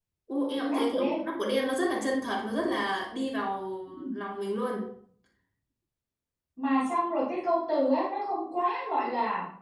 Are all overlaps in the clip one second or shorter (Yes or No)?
Yes